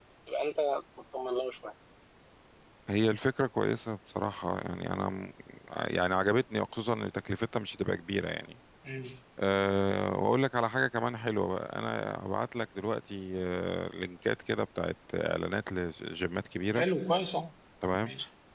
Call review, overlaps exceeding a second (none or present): none